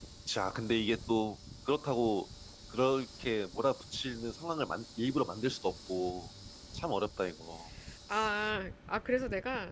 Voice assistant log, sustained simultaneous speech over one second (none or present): none